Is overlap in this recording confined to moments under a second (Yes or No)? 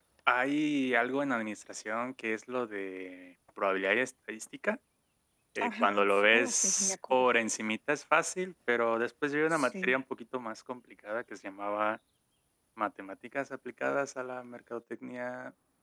No